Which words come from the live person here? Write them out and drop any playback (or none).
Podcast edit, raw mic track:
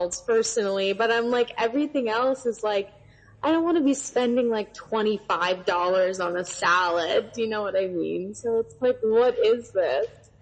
none